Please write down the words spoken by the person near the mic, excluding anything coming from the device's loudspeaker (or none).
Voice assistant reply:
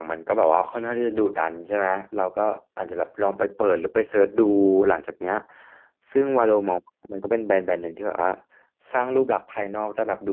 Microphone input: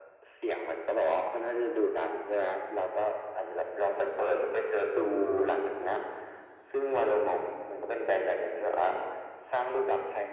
none